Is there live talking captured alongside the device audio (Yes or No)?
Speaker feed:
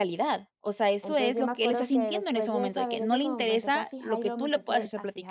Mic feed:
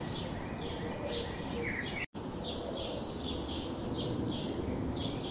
No